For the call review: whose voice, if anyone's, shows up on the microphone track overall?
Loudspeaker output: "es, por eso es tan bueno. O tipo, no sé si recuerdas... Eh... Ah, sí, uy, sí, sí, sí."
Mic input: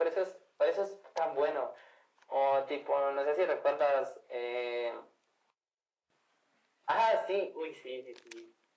echo only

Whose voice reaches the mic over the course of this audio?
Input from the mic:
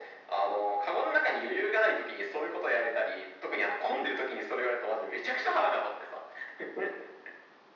echo only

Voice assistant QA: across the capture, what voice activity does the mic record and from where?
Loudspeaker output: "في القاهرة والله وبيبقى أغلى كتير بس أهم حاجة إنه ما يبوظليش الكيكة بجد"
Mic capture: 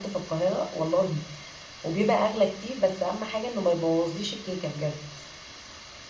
echo only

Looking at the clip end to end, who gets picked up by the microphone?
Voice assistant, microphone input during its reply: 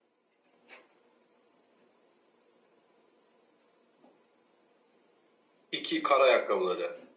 user only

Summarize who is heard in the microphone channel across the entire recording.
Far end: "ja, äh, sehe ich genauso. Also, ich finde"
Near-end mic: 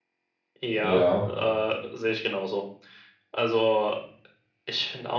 both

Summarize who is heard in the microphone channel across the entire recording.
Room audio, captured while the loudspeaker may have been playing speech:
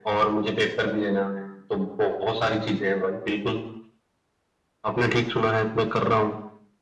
echo only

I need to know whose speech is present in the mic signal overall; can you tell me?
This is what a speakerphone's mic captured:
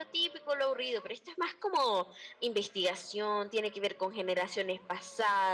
echo only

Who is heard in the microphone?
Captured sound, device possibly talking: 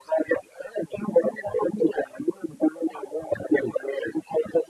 echo only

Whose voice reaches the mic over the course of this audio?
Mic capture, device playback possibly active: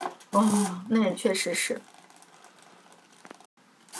user only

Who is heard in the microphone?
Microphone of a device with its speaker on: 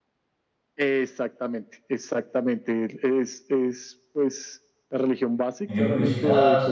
both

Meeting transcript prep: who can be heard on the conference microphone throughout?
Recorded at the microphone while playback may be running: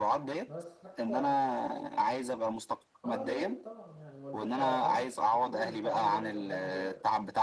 both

